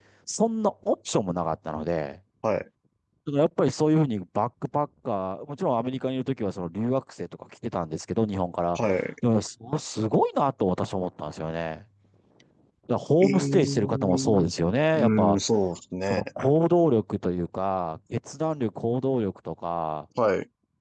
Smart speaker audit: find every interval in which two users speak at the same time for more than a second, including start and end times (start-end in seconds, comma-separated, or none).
13.2-14.5